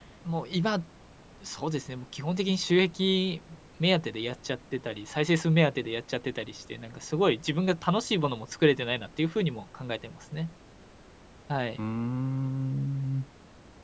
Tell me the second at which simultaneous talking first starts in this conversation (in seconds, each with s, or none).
none